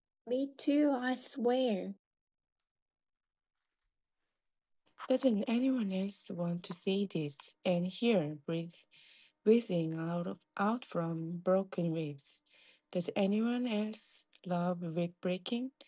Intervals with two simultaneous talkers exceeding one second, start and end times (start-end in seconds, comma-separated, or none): none